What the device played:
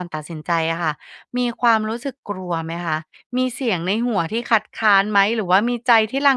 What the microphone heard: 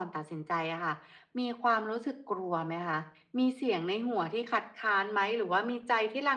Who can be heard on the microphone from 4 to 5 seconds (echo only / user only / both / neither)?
echo only